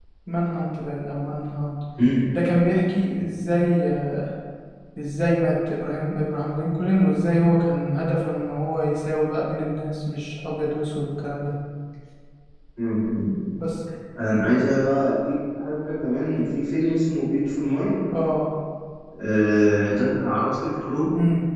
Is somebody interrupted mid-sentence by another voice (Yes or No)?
No